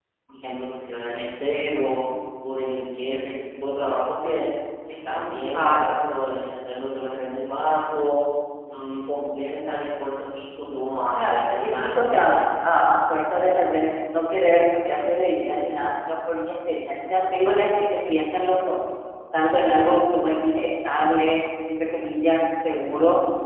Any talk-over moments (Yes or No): Yes